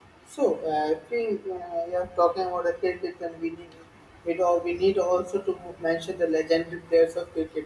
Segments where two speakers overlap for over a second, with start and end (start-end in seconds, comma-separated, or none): none